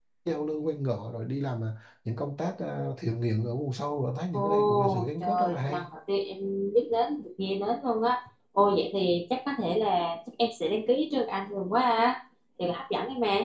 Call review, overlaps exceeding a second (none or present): present